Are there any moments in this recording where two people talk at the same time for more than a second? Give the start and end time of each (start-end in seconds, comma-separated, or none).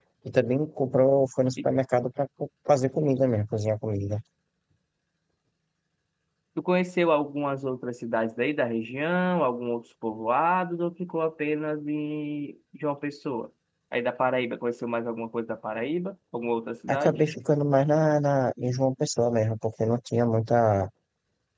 none